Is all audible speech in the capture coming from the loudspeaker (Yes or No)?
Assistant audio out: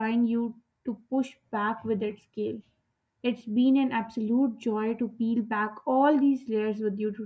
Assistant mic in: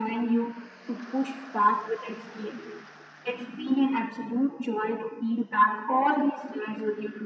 Yes